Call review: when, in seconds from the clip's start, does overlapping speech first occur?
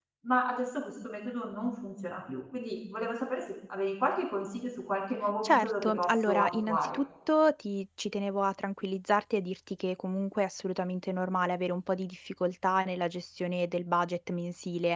5.4 s

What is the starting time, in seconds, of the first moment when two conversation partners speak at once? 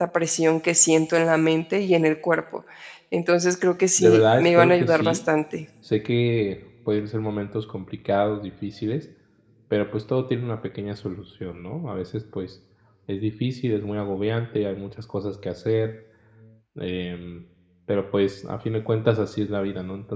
4.0 s

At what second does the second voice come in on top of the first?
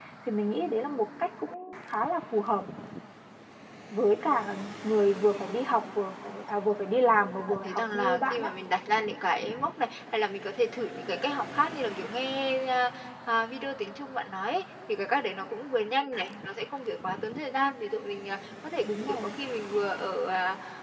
7.2 s

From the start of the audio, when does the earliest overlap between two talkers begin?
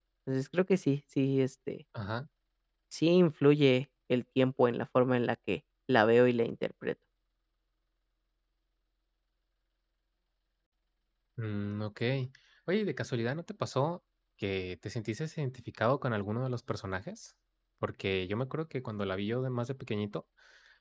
none

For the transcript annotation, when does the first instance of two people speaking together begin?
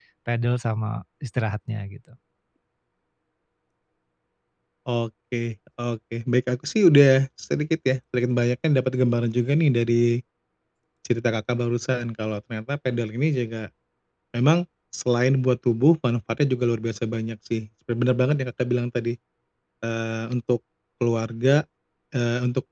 none

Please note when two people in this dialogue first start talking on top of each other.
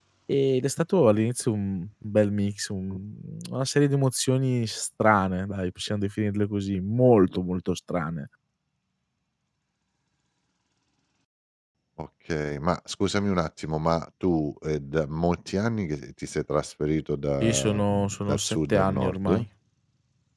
17.4 s

